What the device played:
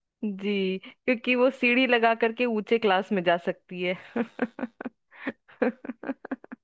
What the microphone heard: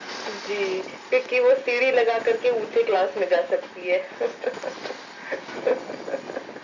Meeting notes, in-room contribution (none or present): none